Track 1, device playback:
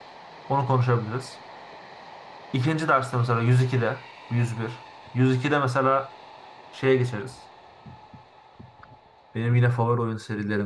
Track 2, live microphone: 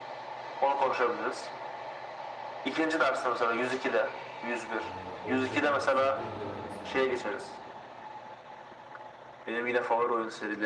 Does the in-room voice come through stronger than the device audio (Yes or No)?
No